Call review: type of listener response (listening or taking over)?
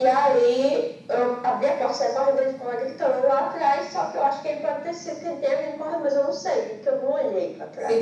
taking over